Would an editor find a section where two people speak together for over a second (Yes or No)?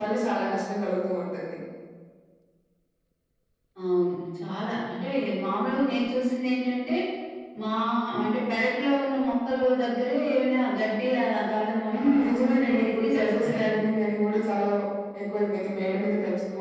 Yes